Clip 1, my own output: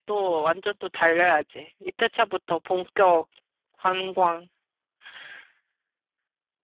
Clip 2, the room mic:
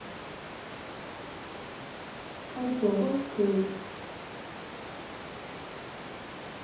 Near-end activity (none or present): present